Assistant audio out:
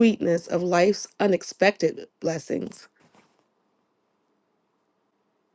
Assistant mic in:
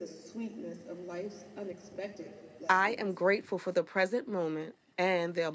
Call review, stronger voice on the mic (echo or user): user